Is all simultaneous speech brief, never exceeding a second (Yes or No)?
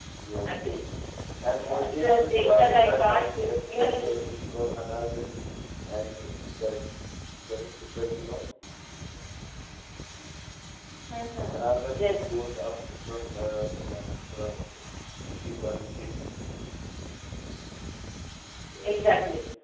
No